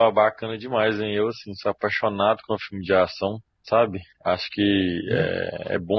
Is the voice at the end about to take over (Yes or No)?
No